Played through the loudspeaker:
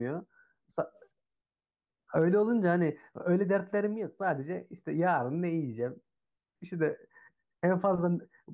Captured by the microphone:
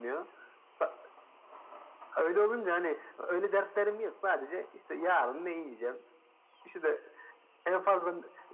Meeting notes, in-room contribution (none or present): none